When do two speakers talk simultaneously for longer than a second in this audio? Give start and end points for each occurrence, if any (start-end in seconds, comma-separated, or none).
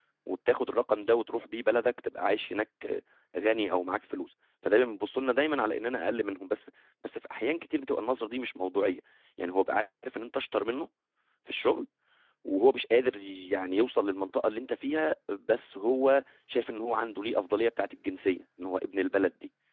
none